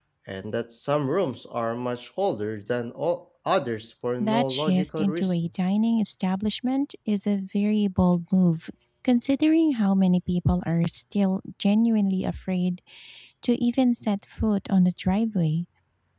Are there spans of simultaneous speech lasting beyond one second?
Yes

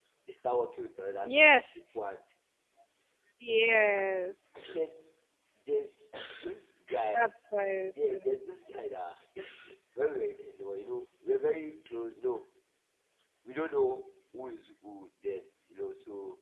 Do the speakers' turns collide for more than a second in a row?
No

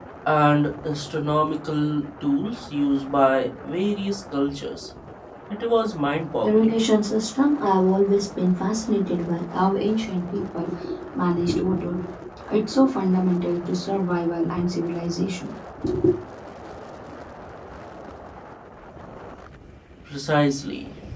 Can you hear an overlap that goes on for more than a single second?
No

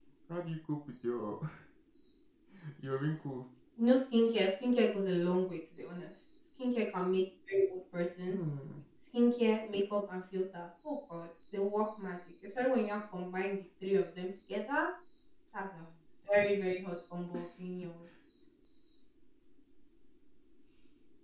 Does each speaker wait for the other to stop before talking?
Yes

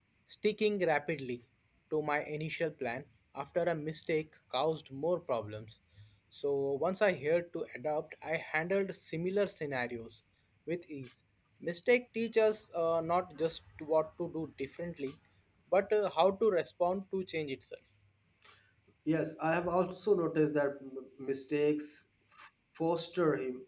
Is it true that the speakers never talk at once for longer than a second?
Yes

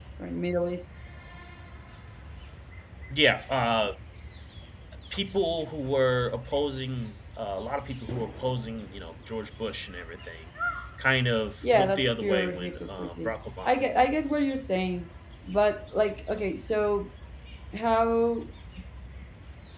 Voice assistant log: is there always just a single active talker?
No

